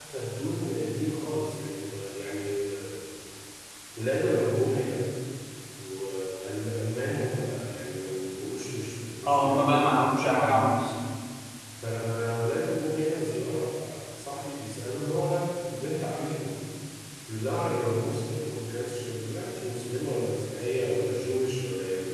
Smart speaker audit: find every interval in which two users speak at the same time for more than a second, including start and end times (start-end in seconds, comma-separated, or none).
9.3-10.8